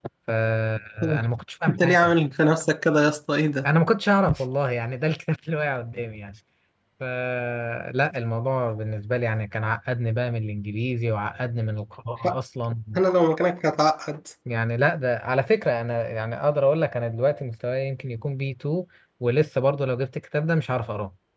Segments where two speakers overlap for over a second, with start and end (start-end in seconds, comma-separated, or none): none